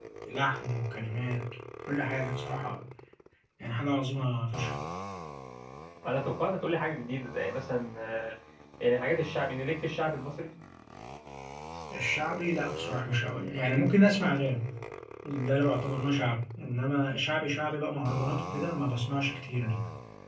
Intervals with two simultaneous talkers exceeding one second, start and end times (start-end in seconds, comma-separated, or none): none